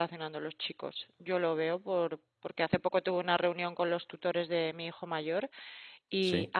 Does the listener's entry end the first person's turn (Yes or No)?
No